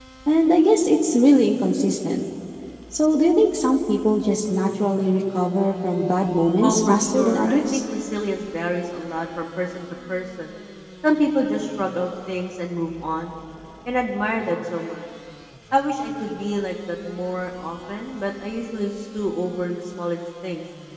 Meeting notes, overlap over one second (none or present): present